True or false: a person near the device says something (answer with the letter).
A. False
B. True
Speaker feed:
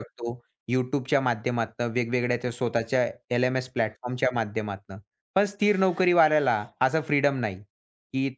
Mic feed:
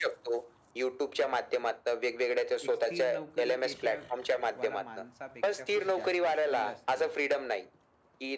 B